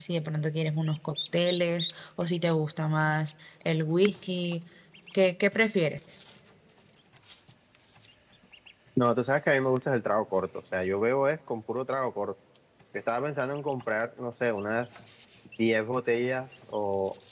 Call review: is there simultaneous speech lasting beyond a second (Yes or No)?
No